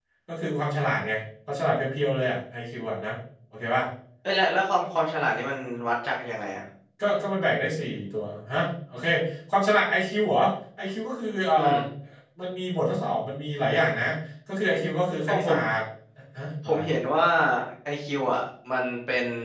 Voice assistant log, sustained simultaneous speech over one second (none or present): none